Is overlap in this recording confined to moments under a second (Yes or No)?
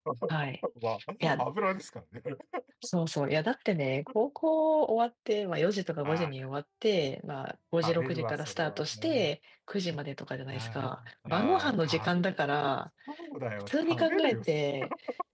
No